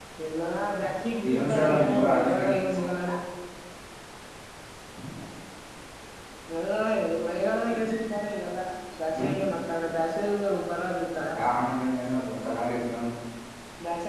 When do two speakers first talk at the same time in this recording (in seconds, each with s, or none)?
1.2 s